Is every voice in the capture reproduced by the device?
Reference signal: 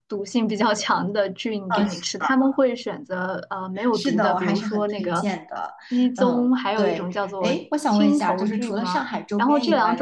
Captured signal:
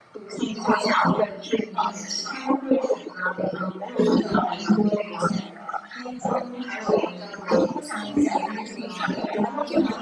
Yes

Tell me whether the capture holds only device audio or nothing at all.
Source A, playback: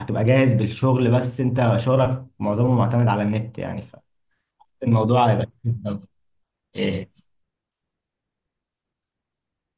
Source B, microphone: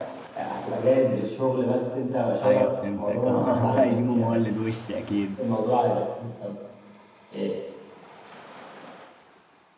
No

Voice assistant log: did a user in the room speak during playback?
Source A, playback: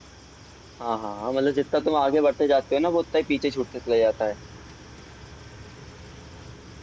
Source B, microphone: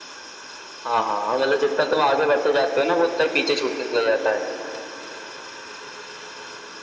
No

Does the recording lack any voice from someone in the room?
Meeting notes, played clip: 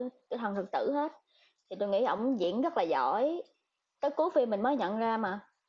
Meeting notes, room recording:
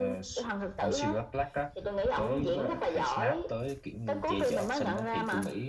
No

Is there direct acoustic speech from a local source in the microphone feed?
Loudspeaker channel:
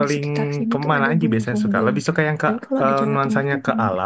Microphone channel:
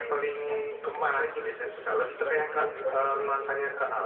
Yes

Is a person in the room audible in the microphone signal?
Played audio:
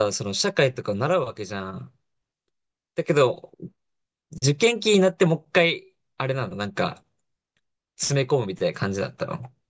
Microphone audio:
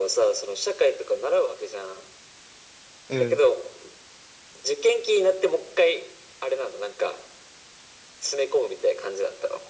Yes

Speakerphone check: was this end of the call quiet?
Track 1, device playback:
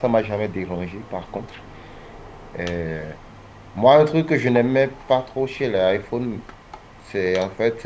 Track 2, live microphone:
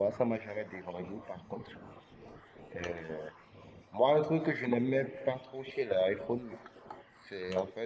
Yes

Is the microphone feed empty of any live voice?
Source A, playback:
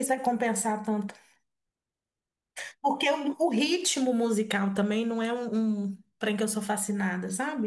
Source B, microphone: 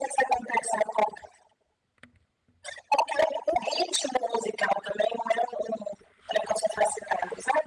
Yes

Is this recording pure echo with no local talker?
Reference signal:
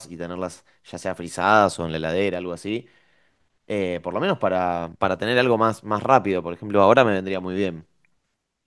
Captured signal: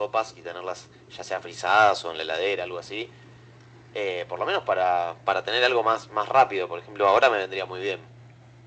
Yes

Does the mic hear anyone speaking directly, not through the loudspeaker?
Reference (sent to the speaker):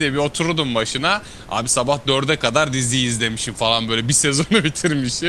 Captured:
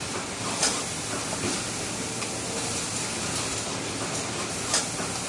No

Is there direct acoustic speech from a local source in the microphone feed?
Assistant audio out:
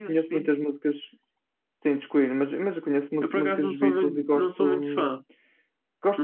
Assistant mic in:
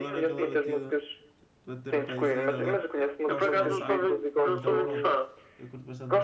Yes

